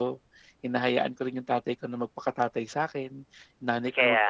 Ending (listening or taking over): listening